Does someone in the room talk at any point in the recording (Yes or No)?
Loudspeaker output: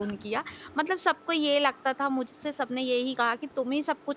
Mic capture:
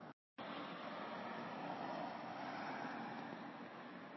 No